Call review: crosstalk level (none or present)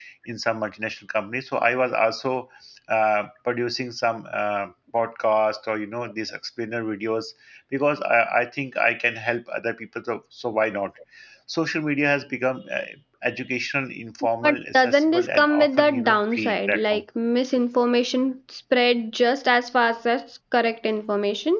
present